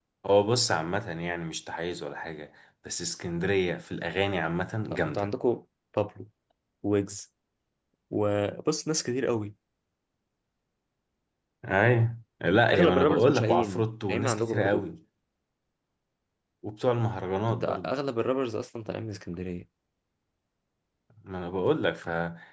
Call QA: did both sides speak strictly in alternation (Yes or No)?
No